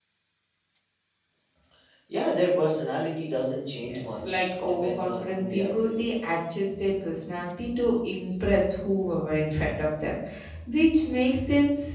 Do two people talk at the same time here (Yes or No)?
Yes